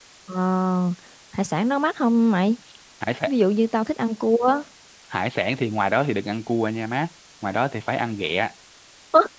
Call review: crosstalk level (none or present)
none